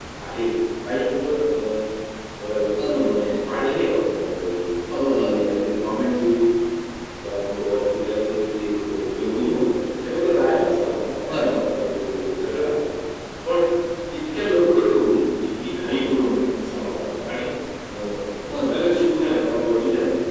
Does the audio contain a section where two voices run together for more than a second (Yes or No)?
No